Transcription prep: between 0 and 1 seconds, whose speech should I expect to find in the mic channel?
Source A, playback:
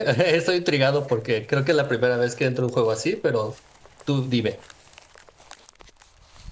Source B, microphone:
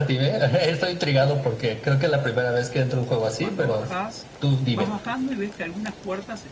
echo only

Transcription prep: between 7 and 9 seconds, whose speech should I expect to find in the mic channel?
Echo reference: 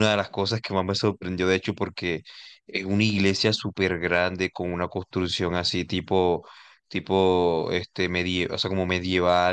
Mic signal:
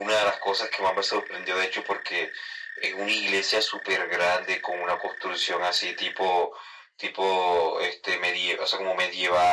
echo only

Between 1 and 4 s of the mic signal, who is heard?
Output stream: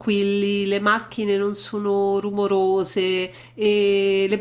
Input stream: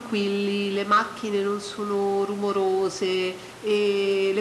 echo only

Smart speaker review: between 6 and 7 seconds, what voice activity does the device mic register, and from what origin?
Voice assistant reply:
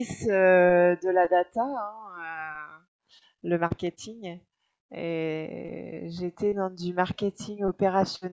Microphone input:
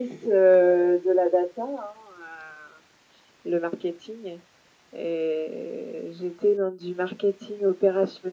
echo only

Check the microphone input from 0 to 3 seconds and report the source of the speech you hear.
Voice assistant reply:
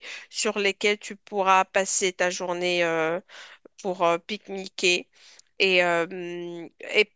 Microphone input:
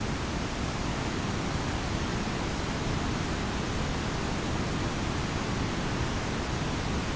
neither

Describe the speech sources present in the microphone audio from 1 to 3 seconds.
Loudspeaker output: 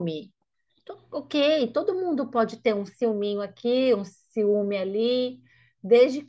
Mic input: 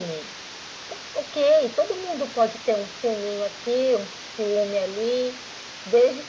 echo only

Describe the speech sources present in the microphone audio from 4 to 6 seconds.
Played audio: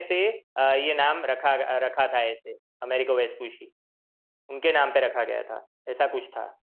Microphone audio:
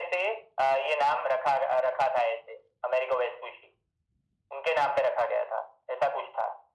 echo only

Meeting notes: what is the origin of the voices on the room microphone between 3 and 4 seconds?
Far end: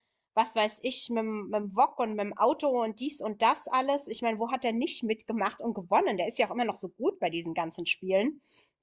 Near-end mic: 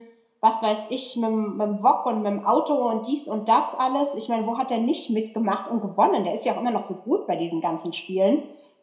echo only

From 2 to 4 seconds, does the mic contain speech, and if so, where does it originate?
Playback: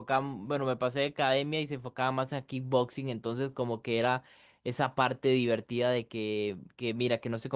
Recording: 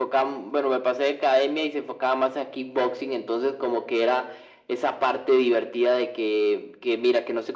echo only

